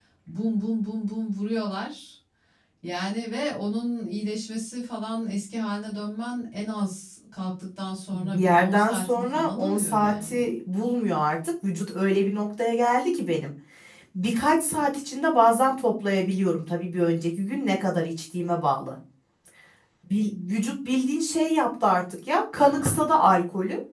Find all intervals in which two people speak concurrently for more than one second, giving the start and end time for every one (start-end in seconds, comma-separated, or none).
8.1-10.3